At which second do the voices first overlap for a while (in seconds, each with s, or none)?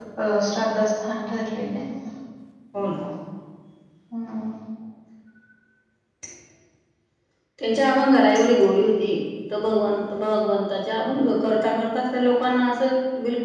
none